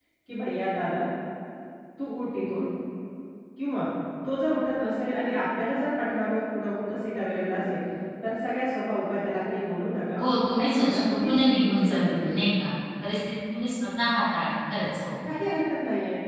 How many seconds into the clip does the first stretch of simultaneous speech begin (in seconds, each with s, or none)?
10.6 s